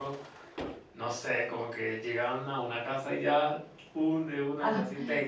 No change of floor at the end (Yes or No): No